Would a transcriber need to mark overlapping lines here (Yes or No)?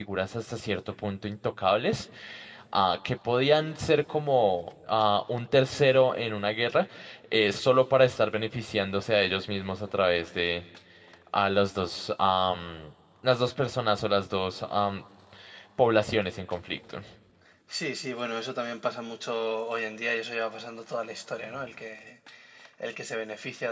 No